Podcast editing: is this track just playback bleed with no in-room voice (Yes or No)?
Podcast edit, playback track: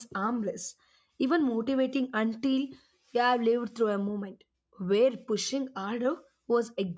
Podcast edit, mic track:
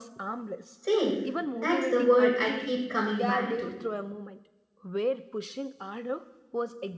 No